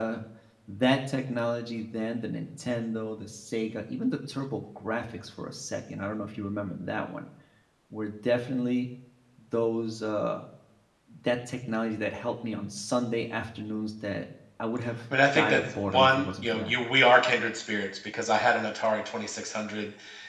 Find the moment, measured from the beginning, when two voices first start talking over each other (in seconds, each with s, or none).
15.3 s